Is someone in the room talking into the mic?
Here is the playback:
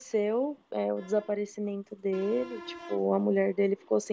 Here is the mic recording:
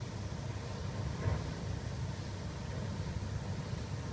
No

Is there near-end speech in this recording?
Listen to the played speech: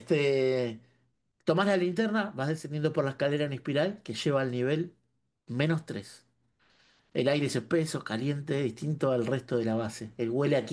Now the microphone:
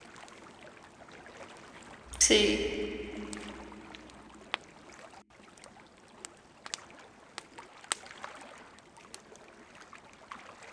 Yes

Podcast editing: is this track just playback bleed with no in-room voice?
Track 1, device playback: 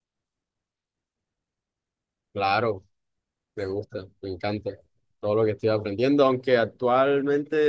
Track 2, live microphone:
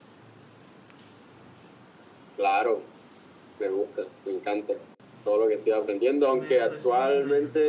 No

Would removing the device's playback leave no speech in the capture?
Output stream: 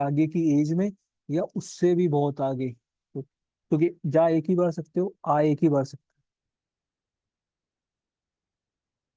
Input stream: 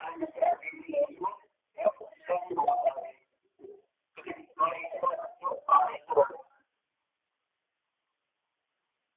Yes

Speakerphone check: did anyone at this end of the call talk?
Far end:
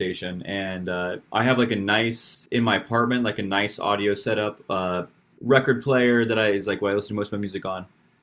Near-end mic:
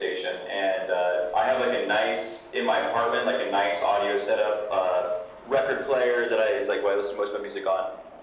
No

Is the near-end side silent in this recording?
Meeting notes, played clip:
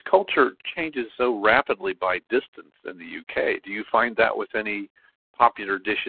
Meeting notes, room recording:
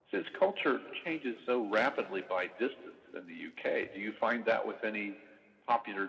Yes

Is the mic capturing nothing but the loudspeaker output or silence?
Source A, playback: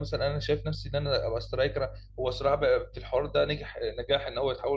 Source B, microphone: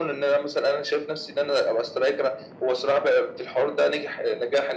Yes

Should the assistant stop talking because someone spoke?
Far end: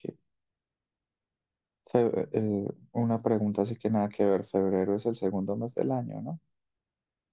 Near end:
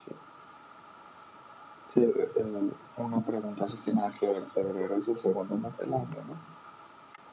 No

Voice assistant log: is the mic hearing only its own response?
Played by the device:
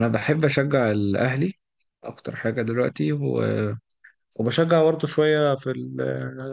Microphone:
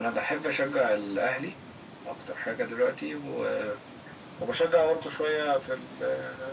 Yes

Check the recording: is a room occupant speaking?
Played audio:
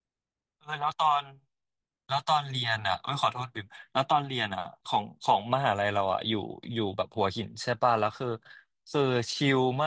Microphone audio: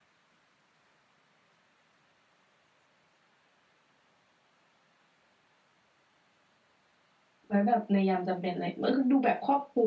Yes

